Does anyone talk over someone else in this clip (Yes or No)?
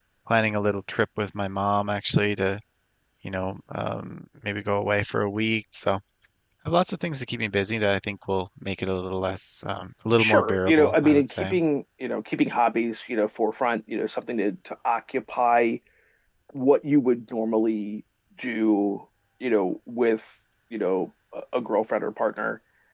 Yes